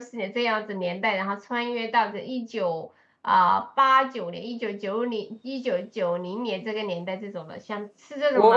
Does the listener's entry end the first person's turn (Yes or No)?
Yes